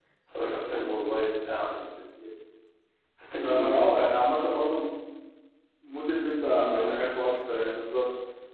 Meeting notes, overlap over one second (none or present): none